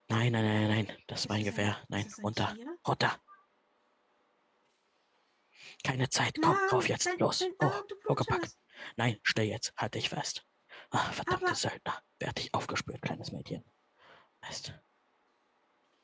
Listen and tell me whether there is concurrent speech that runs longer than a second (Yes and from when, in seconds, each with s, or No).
Yes, from 1.2 s